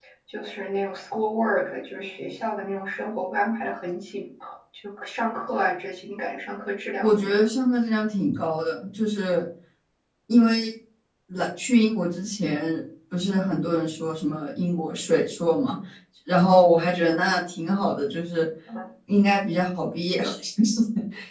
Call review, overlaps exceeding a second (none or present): none